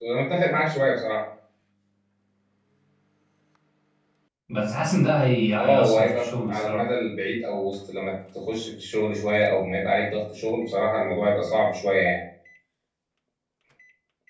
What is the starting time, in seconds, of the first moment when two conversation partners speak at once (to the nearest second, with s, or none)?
6 s